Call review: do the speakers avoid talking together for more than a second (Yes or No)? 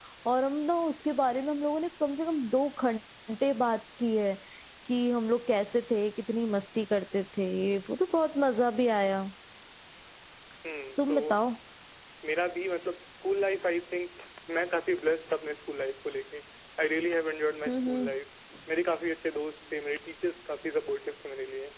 Yes